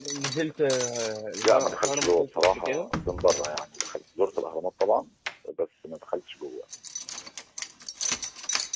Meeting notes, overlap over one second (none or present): present